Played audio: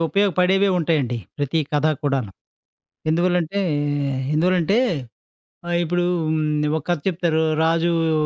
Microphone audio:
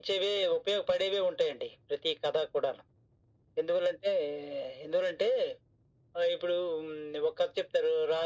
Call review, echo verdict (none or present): present